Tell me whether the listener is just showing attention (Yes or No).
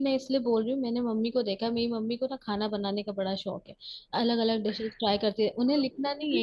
Yes